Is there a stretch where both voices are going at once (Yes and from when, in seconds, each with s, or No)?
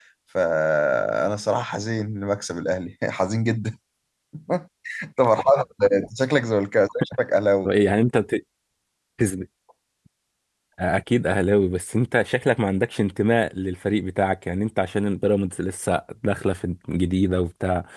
No